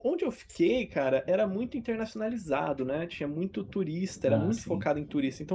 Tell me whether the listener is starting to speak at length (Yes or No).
No